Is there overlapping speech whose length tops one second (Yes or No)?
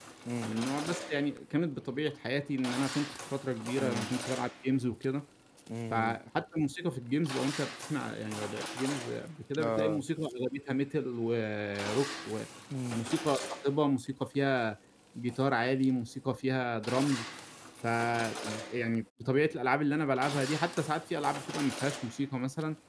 No